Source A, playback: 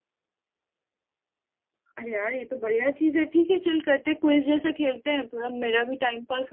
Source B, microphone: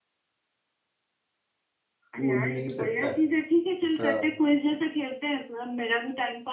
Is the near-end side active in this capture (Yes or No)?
Yes